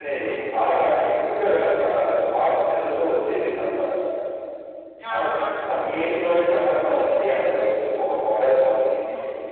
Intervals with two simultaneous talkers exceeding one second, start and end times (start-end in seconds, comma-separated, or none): none